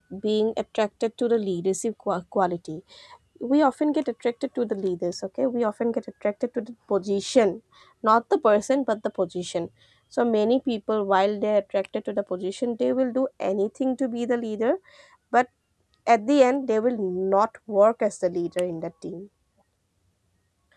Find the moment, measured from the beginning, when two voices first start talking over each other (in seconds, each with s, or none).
none